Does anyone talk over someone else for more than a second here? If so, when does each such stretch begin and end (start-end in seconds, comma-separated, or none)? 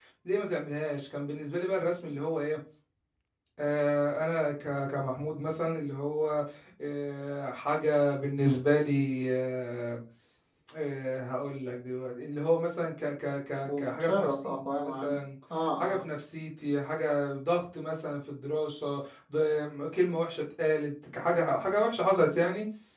13.7-15.2